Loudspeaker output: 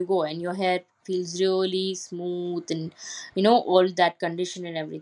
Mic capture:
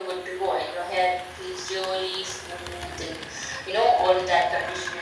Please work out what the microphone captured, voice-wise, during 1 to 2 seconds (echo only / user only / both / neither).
echo only